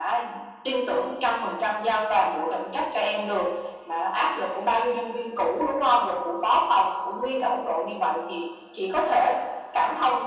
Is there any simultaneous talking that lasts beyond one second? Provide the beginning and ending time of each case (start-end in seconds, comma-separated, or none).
none